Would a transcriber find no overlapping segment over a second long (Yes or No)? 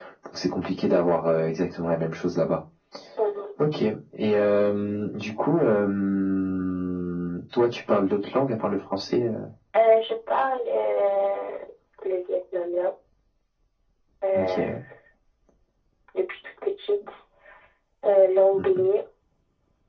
Yes